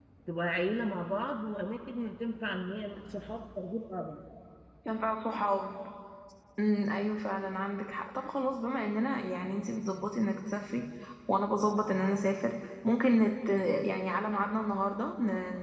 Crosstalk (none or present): none